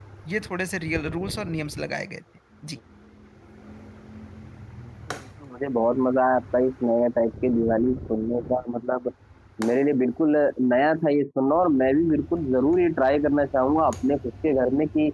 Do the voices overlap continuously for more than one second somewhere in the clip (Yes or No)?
No